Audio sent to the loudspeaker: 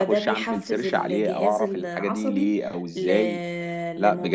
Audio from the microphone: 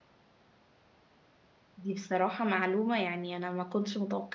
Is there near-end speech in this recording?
Yes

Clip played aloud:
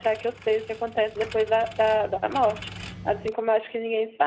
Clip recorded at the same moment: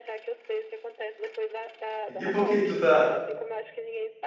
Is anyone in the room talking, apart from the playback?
Yes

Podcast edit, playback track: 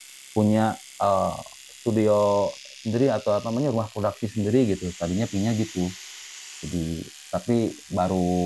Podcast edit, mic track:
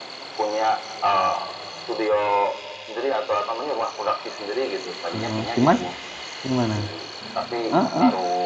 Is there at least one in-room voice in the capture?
Yes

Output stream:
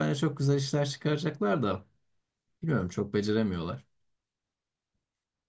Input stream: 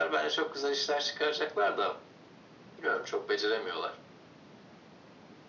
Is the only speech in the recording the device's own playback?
Yes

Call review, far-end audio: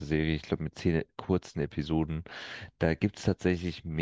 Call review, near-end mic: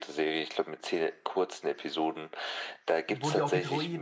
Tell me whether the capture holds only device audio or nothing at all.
No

